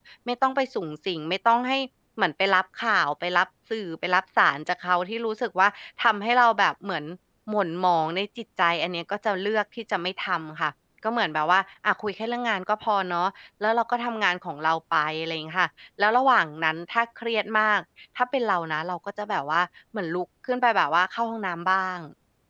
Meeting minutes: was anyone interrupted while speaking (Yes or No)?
No